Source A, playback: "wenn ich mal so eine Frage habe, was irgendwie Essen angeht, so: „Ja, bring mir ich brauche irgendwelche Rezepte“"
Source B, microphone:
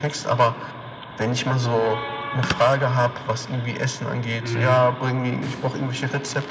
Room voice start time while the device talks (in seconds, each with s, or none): 4.4 s